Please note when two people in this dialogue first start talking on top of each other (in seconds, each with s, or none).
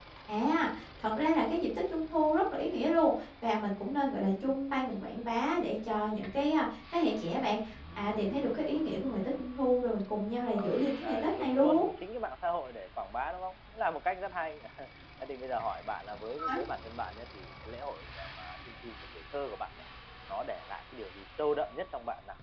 10.5 s